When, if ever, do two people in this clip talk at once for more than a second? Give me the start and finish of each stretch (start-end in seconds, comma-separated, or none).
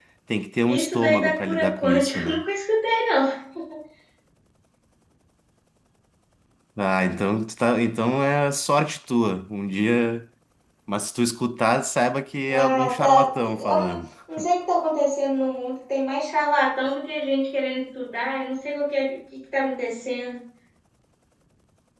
0.7-2.4, 12.5-14.0